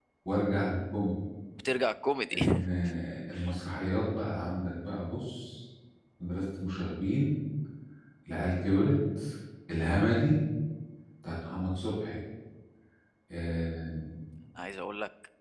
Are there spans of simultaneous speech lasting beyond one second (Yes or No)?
No